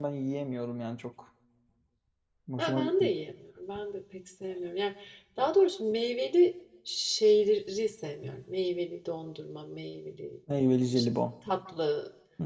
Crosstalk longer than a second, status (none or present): none